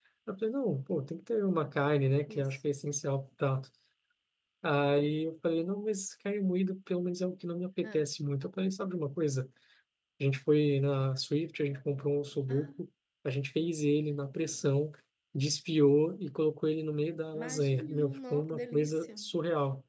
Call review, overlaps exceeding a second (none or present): present